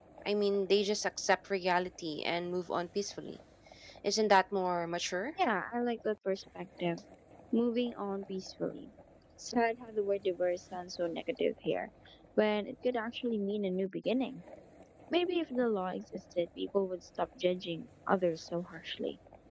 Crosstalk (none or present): none